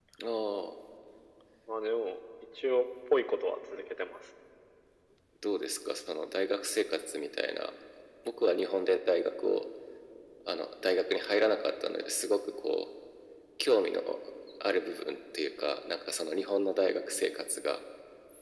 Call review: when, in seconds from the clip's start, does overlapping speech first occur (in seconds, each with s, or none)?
none